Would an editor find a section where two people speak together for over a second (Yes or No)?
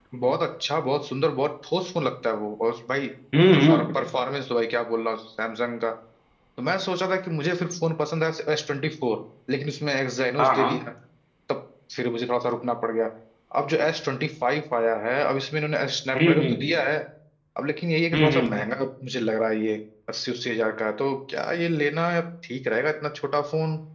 No